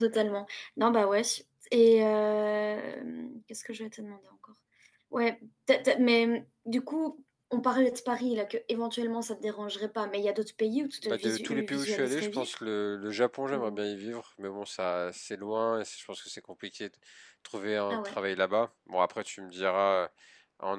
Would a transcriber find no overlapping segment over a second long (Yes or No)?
No